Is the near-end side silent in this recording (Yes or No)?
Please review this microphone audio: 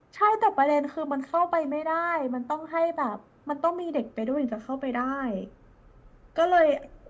Yes